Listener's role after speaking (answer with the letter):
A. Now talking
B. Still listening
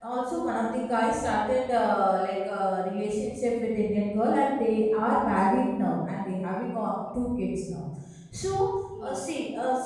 B